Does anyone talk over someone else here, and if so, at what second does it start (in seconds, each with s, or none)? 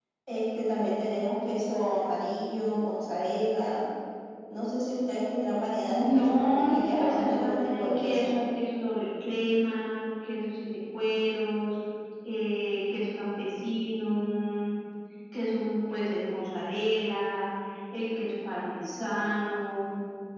5.8 s